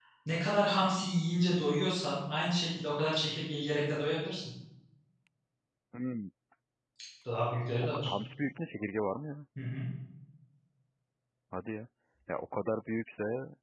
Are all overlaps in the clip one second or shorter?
Yes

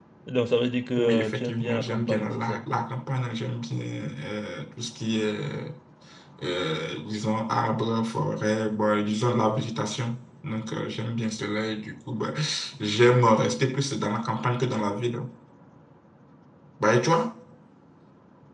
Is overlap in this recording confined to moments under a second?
No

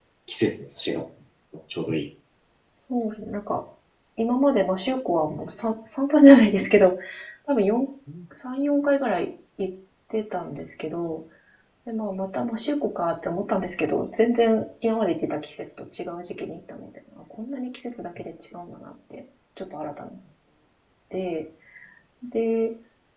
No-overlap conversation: Yes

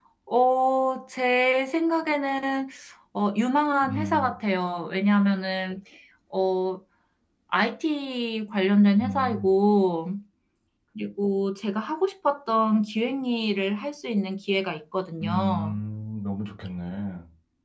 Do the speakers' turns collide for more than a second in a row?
No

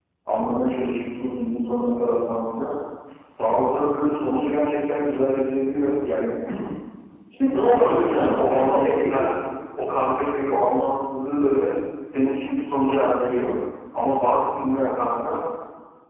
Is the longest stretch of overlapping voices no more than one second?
No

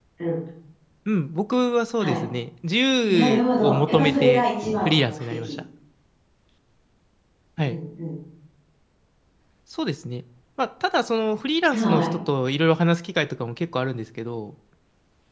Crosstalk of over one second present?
Yes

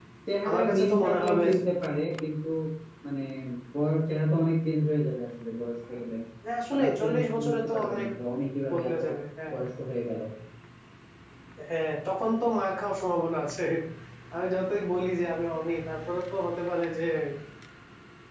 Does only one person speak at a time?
No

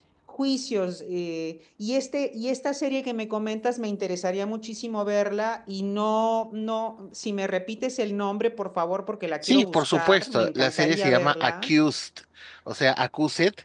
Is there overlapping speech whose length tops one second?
Yes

